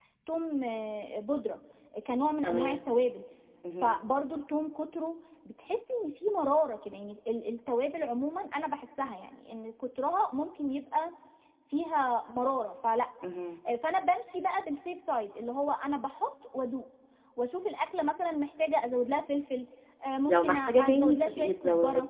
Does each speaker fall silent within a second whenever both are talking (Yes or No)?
No